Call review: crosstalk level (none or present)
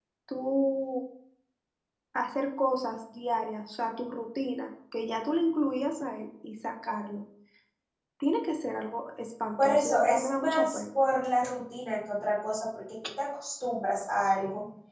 present